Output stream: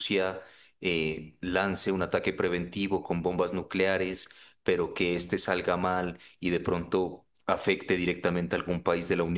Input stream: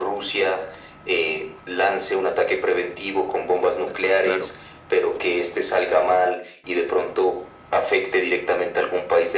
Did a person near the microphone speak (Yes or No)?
Yes